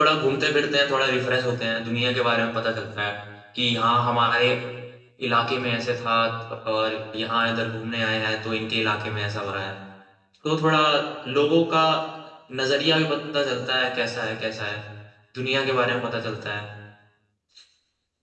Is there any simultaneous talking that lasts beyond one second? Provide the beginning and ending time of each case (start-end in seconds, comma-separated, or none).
none